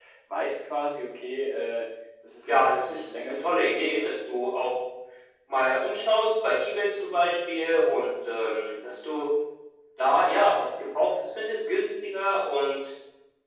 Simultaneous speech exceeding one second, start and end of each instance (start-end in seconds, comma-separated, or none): 2.5-4.1